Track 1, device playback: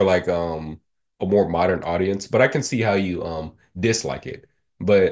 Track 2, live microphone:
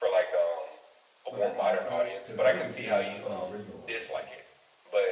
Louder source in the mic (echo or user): echo